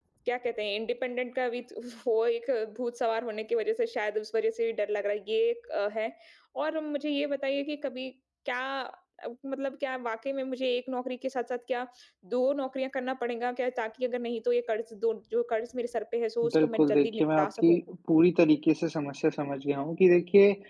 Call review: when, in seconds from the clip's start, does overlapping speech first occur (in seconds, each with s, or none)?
16.4 s